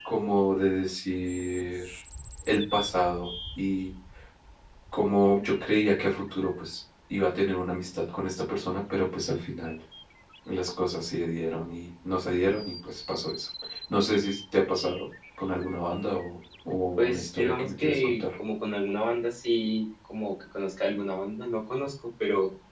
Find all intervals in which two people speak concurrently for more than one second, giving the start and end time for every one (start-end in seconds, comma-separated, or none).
17.0-18.2